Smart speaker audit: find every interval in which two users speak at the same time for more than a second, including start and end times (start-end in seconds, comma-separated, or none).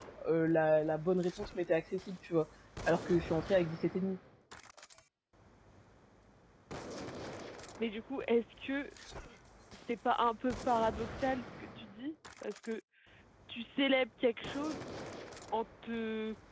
none